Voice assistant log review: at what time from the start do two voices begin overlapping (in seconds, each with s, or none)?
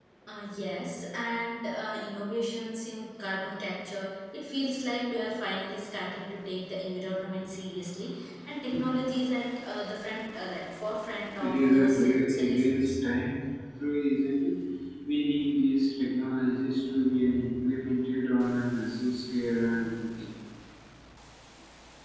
11.4 s